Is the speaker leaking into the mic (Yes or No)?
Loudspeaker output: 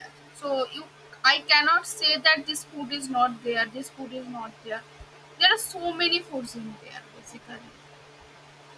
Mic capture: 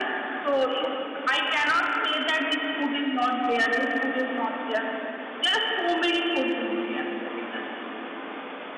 Yes